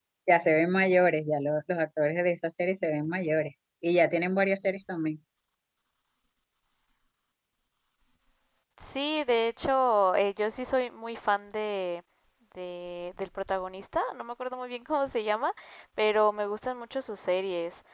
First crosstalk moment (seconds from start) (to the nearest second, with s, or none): none